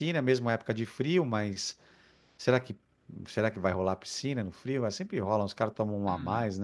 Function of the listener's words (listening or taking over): taking over